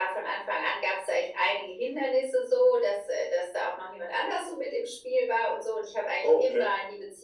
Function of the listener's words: listening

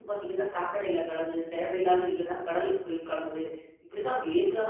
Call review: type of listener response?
listening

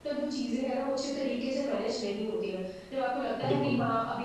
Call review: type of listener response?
listening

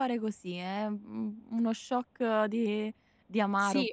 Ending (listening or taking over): taking over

